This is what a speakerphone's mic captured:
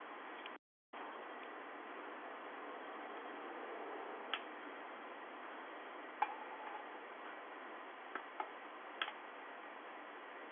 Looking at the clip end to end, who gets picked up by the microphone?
neither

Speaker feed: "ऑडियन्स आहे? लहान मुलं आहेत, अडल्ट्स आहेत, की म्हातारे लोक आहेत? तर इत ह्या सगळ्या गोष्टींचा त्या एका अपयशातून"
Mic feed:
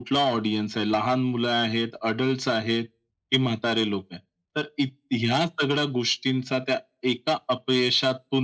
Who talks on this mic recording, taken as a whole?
echo only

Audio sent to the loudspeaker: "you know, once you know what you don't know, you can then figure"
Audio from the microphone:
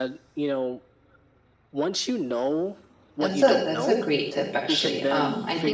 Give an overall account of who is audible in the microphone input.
both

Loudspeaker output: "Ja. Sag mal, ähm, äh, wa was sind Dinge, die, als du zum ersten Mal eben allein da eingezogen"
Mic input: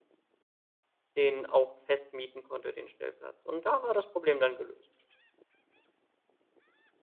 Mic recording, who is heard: user only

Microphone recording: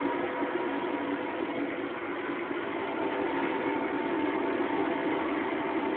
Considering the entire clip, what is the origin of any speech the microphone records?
neither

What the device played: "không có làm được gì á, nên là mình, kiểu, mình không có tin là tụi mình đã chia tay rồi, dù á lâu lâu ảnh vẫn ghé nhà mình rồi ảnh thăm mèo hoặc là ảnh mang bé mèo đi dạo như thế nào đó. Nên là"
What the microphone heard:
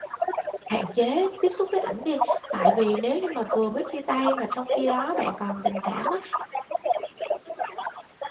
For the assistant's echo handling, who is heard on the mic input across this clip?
both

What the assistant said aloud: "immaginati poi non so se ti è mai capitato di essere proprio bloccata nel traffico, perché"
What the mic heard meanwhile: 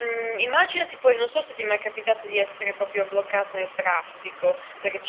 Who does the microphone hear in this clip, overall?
echo only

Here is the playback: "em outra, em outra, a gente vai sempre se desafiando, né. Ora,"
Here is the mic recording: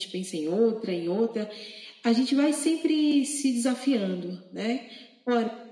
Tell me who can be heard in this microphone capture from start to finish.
echo only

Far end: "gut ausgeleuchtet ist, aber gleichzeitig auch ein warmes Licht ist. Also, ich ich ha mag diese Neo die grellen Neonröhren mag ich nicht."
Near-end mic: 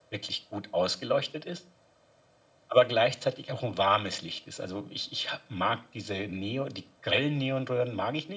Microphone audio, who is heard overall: echo only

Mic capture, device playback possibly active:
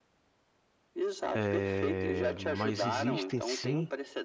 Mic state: both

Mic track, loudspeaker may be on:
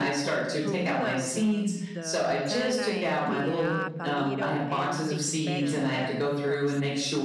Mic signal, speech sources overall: both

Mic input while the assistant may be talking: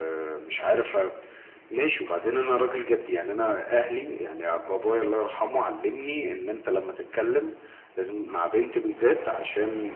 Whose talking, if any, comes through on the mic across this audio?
echo only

